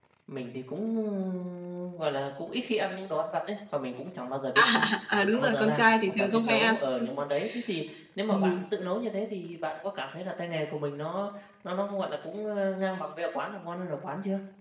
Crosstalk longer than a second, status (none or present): present